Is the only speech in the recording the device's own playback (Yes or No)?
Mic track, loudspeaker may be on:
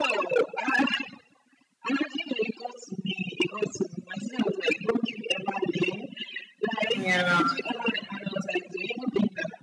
No